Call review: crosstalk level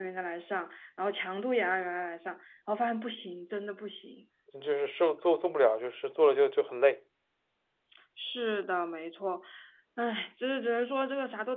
none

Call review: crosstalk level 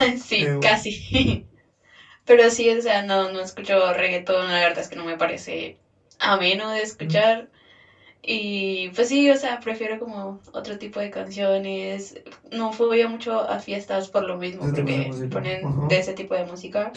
present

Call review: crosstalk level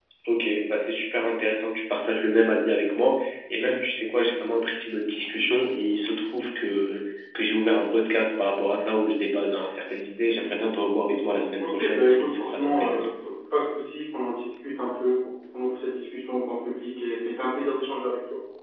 present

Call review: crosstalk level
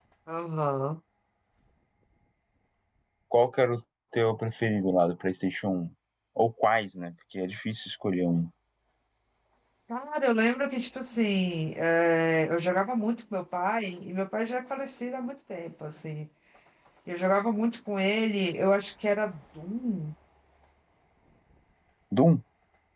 none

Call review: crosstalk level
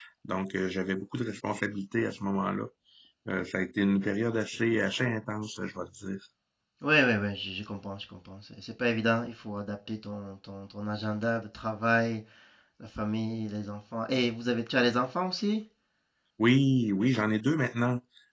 none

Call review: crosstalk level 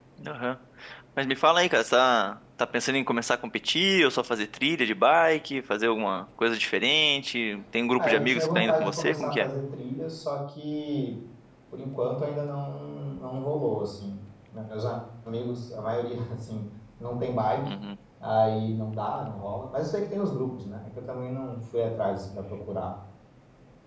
present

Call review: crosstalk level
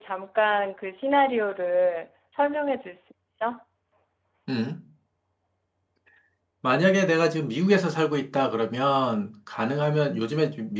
none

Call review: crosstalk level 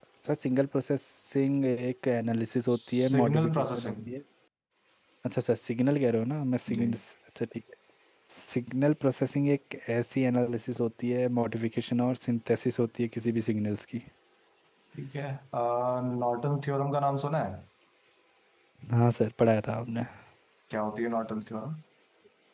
present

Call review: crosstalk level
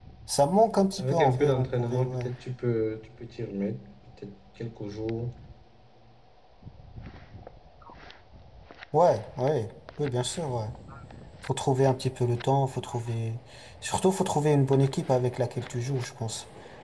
present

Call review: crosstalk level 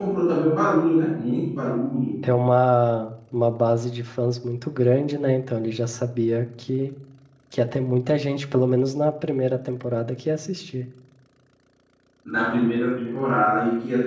none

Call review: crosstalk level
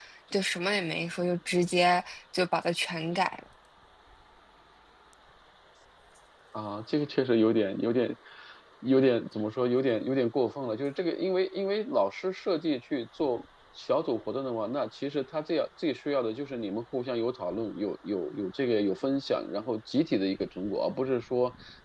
none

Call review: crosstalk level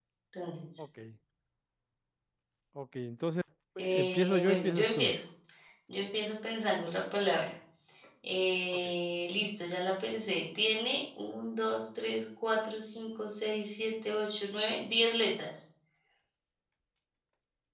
present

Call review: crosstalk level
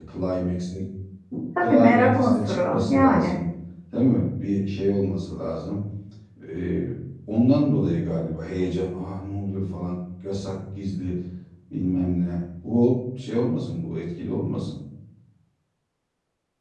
present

